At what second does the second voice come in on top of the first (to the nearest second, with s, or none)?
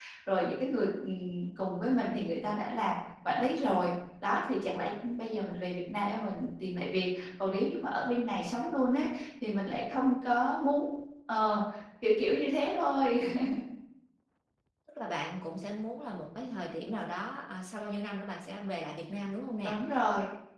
none